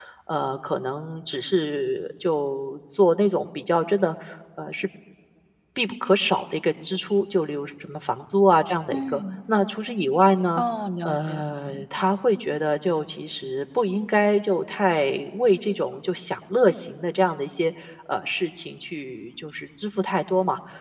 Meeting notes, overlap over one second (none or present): none